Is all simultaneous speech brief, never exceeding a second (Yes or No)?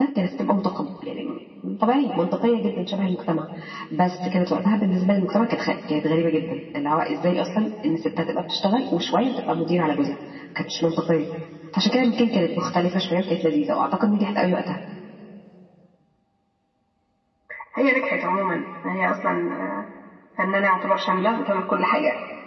Yes